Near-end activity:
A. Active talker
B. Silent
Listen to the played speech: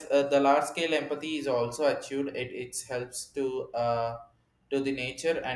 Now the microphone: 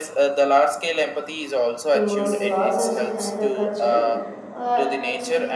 A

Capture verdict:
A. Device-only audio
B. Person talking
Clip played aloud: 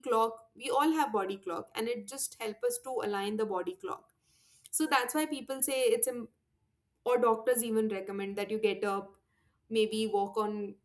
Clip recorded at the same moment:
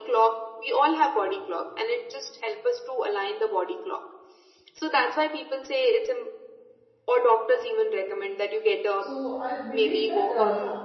B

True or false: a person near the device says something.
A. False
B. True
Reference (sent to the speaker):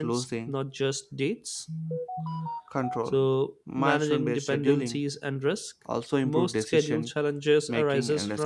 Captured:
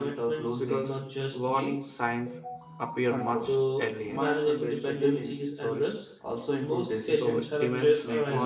B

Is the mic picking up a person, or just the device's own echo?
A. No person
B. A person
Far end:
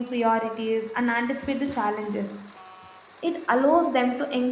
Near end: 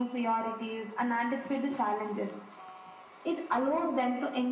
A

